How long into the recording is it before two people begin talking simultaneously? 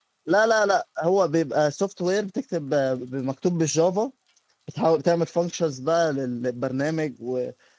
none

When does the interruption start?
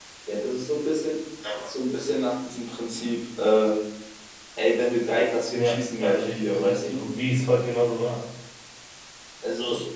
6 s

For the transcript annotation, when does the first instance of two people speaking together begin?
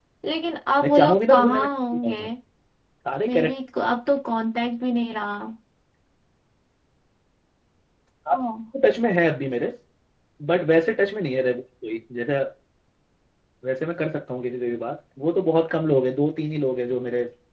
1 s

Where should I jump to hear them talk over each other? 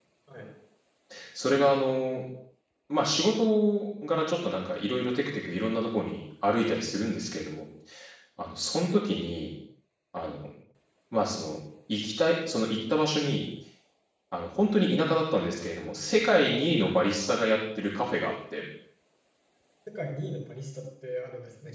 none

